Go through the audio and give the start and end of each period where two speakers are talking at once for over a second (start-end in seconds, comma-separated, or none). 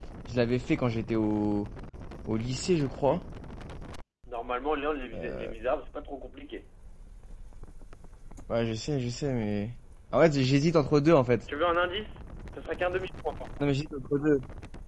none